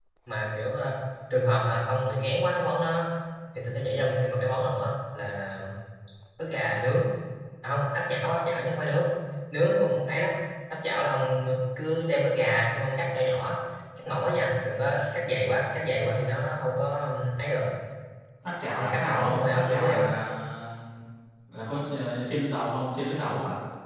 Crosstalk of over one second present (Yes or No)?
Yes